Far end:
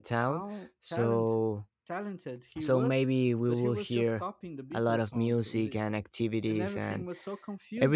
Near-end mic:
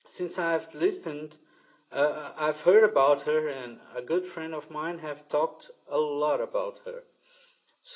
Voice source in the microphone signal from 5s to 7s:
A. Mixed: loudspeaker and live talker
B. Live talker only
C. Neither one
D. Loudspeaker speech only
B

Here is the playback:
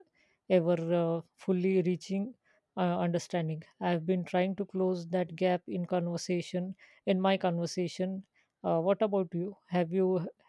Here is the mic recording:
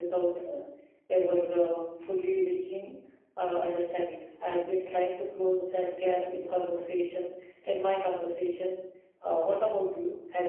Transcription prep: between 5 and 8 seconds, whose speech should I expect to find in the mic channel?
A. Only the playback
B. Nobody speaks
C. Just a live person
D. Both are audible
A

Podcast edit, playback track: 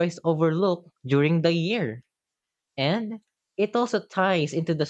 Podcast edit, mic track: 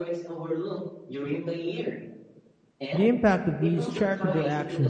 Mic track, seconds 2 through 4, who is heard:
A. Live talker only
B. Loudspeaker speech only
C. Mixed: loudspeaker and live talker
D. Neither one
C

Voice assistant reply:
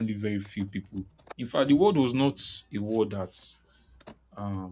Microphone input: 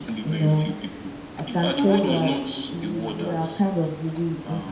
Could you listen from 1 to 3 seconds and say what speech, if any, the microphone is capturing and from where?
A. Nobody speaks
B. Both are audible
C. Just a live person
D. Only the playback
B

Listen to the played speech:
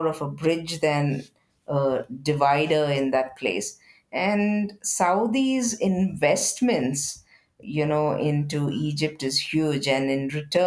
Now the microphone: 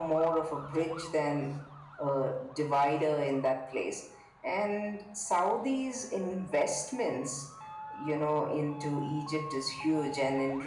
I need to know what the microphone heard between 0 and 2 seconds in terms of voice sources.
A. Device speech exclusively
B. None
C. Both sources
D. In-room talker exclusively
A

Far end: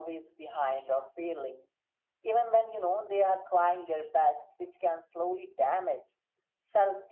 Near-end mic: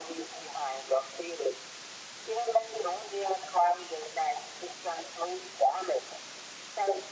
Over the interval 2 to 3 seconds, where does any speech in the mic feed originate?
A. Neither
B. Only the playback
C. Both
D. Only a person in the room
B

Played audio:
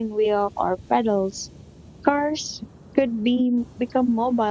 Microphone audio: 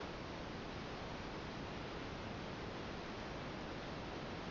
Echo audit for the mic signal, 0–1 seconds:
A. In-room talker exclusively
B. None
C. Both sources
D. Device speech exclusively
B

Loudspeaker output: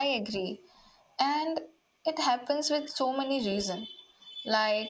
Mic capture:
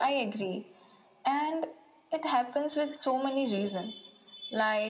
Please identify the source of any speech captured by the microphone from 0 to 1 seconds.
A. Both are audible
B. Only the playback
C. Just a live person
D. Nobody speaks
B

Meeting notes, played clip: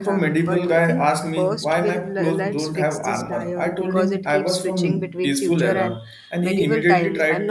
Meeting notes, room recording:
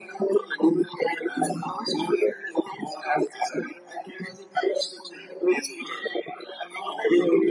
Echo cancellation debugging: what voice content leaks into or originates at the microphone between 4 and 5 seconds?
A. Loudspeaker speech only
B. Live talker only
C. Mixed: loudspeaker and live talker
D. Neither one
A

